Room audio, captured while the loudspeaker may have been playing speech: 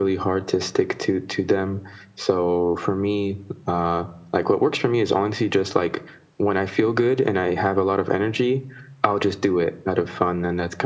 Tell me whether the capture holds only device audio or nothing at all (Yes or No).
Yes